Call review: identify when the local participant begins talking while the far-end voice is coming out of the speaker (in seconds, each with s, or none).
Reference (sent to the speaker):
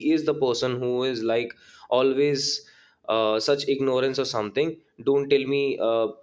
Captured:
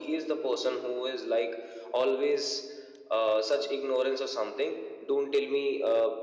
none